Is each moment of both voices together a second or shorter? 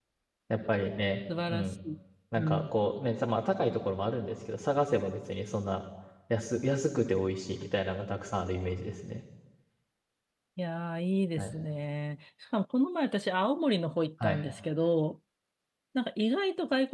Yes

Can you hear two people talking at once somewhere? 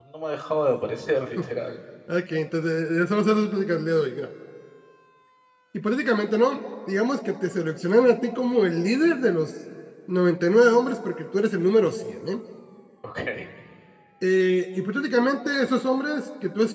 No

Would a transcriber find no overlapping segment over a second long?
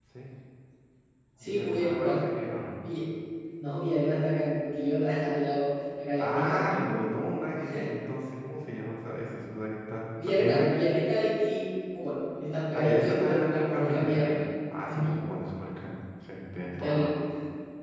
No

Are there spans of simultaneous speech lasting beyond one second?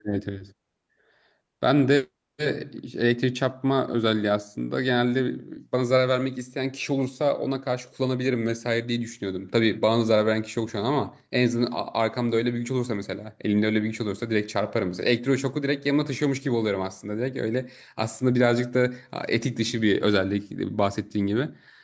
No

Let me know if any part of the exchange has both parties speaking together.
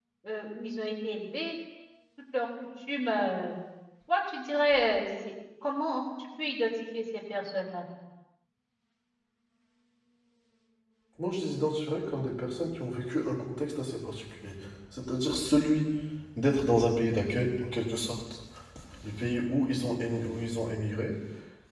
No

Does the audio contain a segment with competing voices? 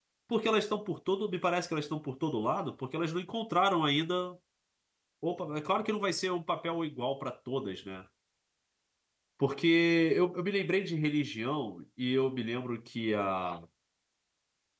No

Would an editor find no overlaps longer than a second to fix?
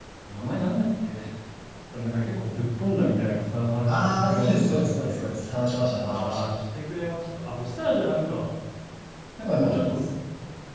No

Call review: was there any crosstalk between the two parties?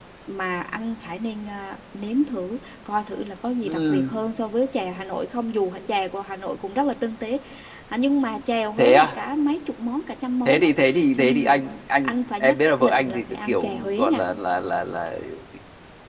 Yes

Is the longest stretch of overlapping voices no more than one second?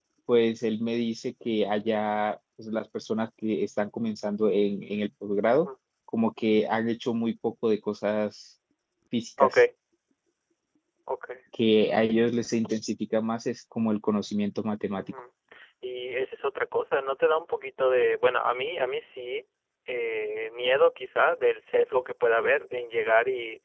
Yes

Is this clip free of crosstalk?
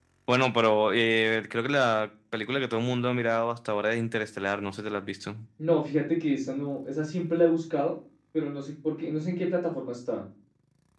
Yes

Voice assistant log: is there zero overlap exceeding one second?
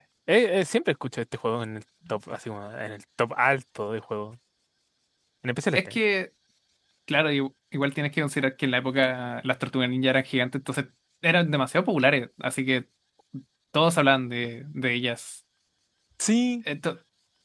Yes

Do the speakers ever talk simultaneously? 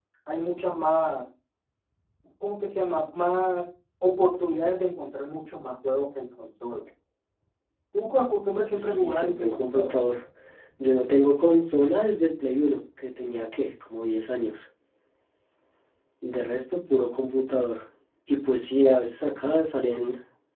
Yes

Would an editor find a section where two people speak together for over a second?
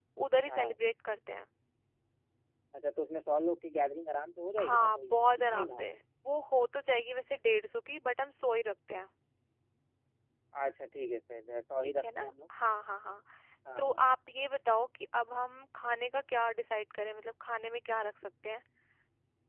Yes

